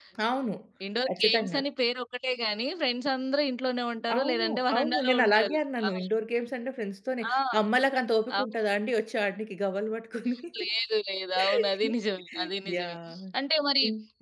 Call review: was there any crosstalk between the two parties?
Yes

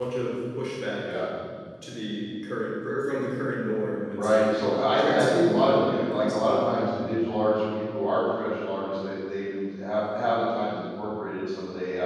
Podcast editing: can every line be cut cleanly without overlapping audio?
No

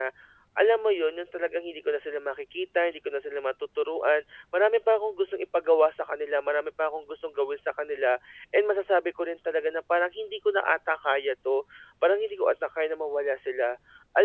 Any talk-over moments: No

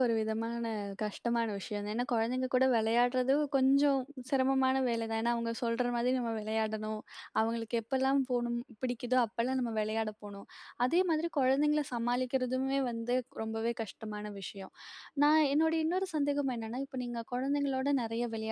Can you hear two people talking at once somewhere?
No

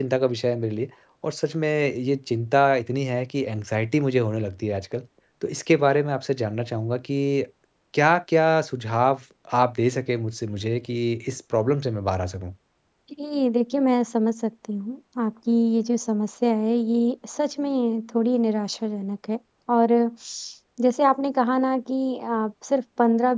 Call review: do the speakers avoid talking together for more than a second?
Yes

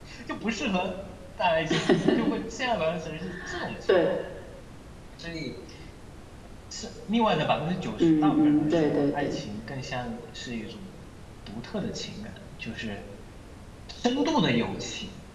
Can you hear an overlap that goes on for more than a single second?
Yes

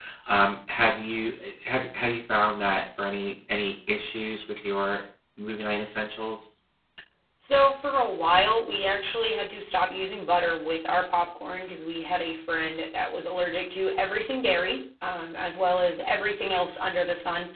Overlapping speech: No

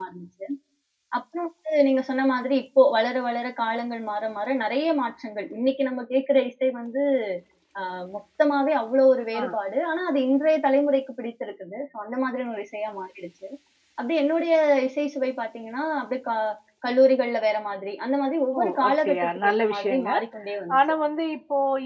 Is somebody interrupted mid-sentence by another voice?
Yes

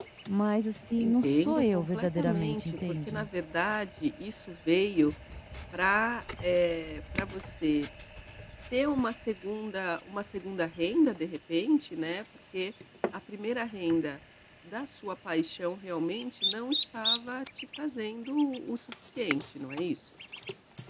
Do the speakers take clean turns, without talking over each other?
No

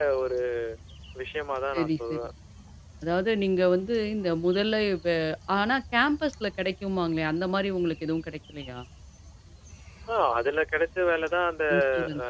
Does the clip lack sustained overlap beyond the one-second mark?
Yes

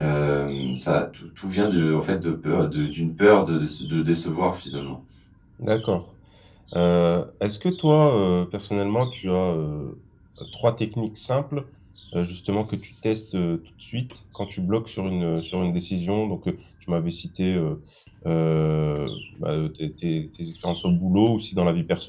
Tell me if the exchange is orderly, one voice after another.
Yes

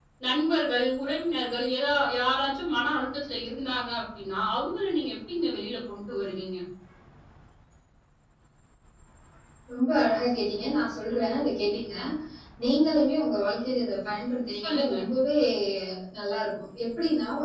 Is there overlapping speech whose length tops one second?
No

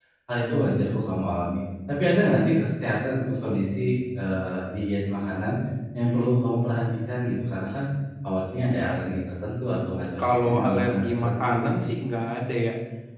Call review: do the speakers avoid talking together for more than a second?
No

